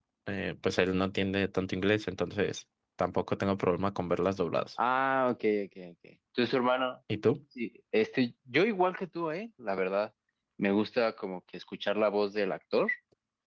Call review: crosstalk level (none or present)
none